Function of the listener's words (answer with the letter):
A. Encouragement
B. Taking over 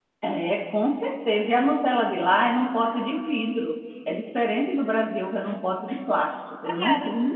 B